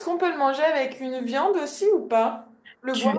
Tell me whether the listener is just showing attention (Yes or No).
No